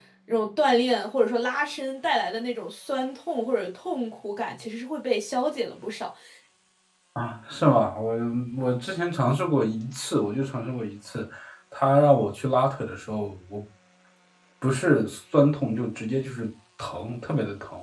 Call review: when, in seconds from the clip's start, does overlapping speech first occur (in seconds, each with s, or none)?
none